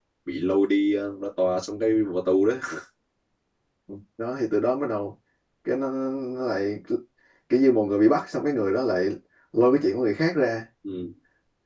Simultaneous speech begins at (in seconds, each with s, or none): none